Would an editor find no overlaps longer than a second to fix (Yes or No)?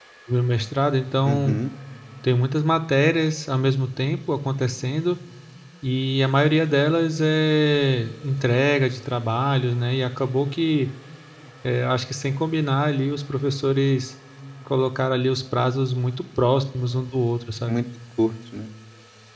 Yes